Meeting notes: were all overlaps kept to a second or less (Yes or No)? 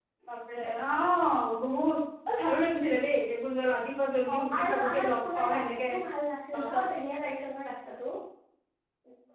No